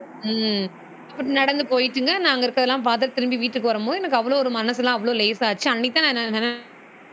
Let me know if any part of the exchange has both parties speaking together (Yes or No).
No